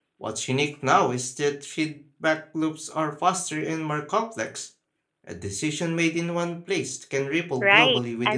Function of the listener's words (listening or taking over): taking over